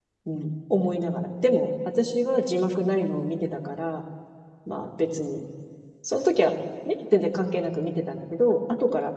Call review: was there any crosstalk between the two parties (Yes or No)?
No